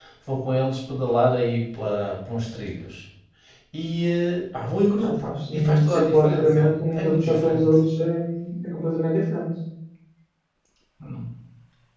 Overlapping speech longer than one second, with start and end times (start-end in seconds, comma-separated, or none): 5.0-7.7